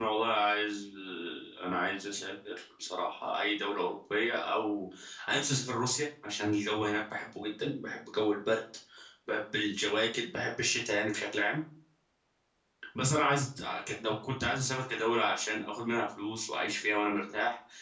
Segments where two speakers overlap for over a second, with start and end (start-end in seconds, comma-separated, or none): none